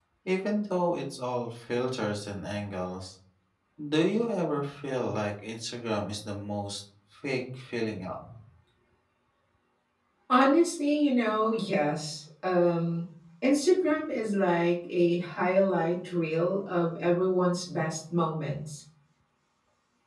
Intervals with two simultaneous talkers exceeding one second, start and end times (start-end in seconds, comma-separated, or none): none